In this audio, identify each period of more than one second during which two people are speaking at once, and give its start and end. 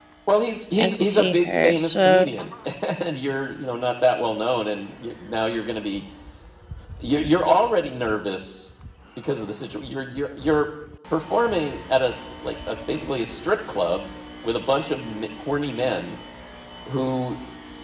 0.8-2.3

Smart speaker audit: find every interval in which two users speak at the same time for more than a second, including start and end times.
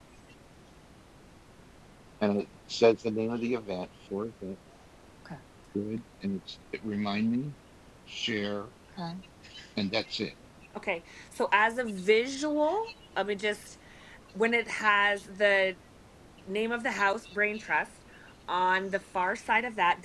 none

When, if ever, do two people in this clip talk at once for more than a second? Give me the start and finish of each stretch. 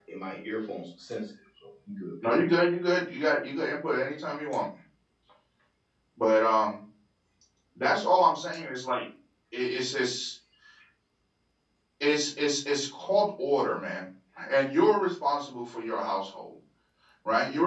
none

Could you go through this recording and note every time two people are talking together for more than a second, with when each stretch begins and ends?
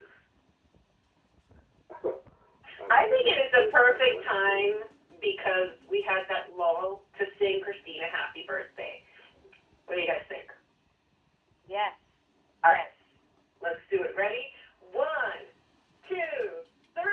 2.9-4.6

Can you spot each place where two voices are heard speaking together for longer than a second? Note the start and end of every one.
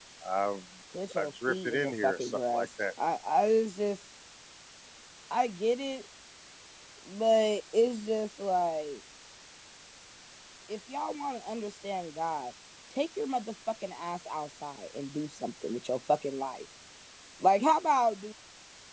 1.2-2.7

